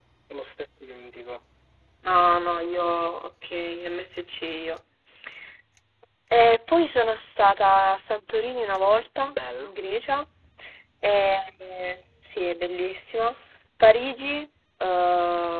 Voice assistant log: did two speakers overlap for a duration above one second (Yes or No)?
No